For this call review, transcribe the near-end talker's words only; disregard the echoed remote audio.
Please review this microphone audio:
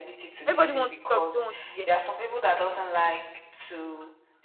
Everybody wants to talk, they don't want to hear

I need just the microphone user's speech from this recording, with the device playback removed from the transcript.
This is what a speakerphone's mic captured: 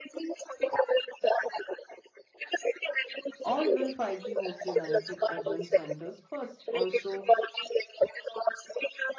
or will 5G mostly benefit urban centers first? Also,

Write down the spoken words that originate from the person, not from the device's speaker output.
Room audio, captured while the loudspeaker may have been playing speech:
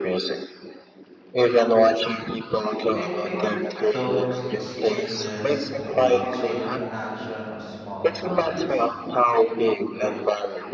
I think those exchanges create a chain reaction of small happiness.

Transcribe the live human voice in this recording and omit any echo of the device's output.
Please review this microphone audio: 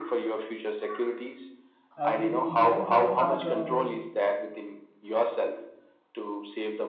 everything and both has a

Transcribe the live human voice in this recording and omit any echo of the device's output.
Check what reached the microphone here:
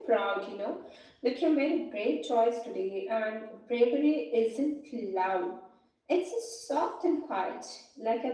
none

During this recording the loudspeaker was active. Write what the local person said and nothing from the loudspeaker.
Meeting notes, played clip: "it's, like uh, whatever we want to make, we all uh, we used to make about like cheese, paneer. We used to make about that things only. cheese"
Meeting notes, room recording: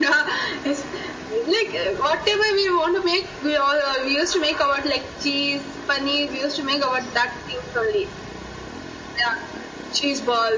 none

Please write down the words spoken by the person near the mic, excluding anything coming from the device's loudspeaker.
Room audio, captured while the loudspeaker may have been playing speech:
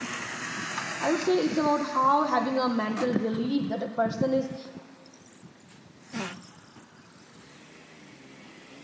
I would say it's about how having a mental relief that a person is

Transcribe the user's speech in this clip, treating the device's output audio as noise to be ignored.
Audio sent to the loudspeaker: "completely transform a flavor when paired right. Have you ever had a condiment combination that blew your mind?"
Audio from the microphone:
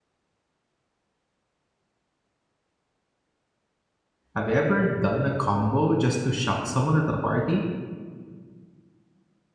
Have you ever done a combo just to shock someone at a party?

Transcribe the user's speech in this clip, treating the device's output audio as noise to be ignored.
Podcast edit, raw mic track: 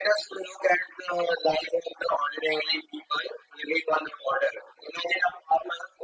none

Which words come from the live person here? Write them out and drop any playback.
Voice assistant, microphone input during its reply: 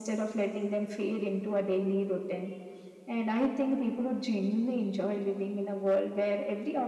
none

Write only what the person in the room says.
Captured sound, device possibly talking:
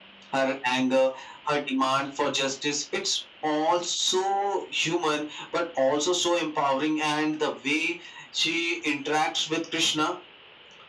none

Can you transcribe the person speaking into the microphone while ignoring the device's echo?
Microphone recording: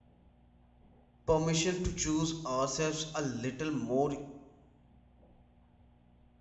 permission to choose ourselves a little more

